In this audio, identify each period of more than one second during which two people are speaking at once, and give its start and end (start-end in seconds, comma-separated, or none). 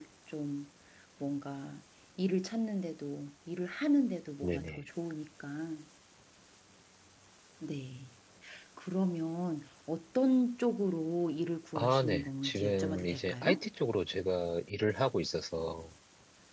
11.8-13.6